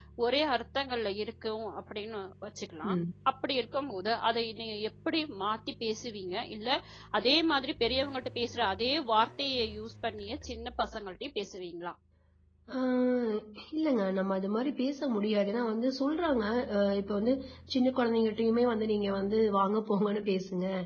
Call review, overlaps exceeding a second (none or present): none